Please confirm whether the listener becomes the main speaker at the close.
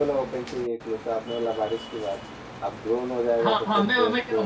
Yes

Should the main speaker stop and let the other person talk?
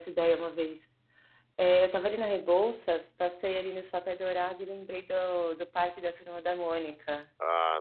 Yes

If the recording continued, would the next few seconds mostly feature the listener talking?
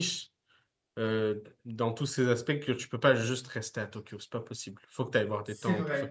No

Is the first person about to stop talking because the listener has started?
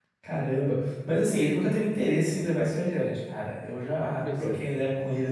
No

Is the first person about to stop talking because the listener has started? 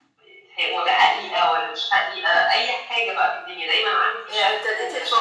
Yes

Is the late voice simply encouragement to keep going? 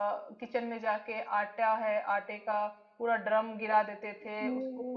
Yes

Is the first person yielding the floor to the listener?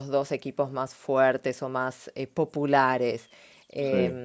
No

